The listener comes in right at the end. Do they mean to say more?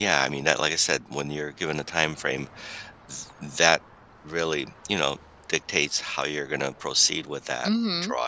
Yes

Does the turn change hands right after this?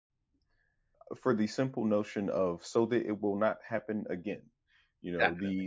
No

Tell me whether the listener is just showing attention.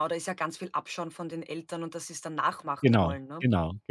No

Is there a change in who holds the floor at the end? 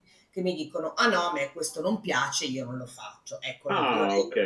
Yes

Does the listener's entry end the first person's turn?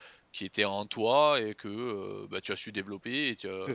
Yes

